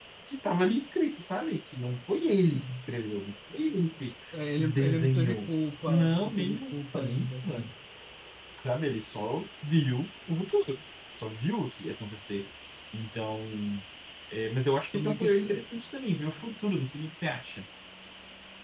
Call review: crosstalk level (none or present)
present